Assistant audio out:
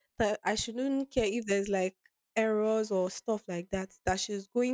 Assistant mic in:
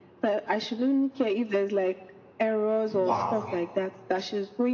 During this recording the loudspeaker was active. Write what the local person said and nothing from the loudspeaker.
Wow,

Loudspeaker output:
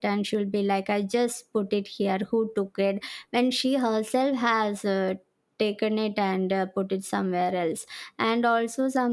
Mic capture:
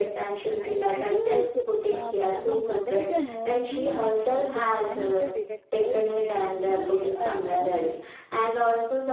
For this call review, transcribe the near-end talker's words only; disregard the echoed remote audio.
And I think like um, our mothers are mostly like uh, they turn into detectives when we, uh, you know,

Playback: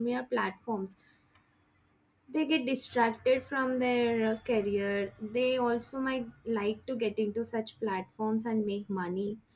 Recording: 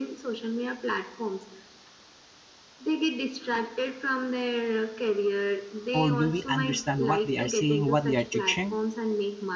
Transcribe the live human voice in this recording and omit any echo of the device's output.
or do we understand what they are saying, what they are teaching?

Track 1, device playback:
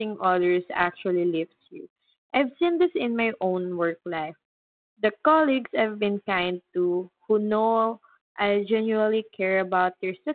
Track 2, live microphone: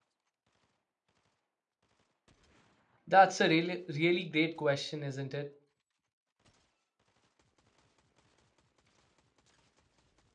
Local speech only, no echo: That's a really, really great question, isn't it?

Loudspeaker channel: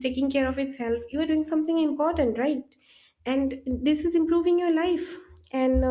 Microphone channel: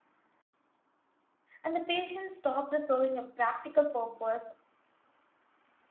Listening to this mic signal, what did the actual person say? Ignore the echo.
and the patient stopped serving a practical purpose.

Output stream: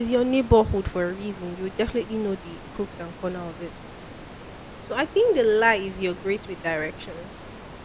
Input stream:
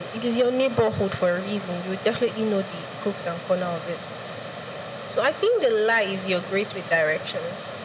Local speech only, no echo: none

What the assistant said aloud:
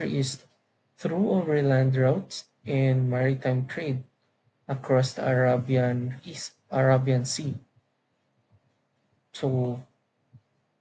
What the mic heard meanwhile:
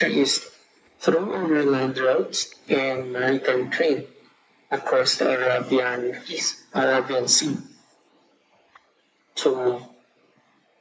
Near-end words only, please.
none

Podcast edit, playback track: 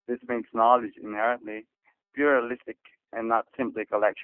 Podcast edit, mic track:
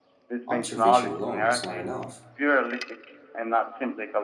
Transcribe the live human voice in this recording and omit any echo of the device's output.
Observation alone is not enough.

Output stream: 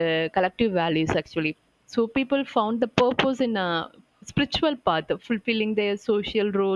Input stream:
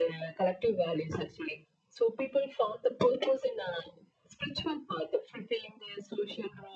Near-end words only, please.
none

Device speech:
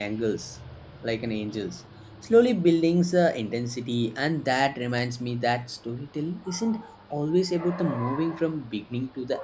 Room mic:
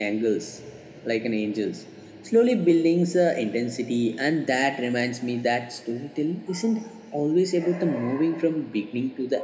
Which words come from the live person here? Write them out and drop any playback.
none

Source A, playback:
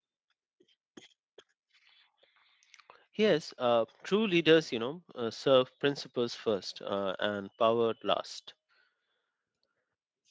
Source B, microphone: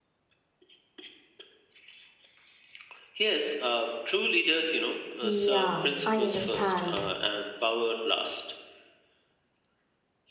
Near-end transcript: Yeah, I understand.

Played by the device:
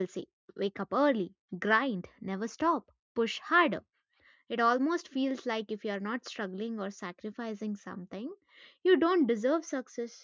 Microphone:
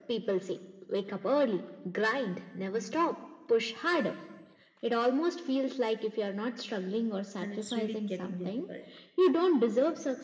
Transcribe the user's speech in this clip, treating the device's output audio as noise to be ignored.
and it's really getting difficult.

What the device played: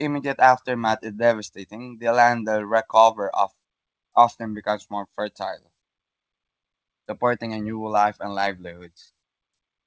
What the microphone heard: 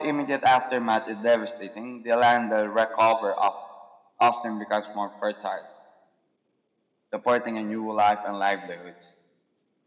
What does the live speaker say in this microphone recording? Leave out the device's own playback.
none

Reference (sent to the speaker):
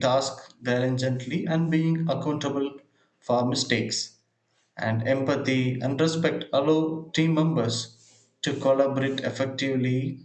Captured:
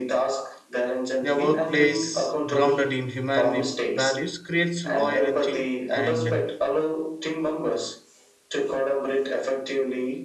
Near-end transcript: a workplace grounded in human values creates loyalty and

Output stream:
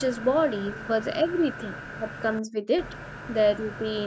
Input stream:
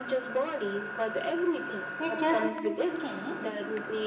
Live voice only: we just see

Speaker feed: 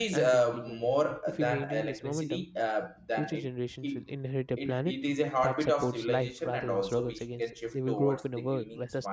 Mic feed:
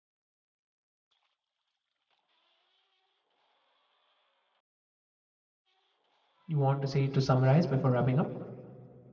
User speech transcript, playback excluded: you want to say to summarize before wrapping up?

